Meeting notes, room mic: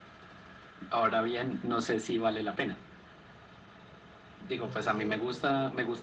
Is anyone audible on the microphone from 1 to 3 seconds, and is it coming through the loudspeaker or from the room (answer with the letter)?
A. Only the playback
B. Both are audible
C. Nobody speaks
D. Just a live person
A